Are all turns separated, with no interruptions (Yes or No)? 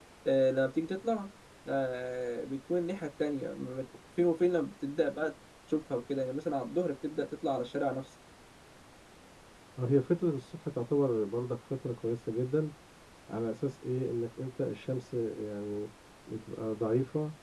Yes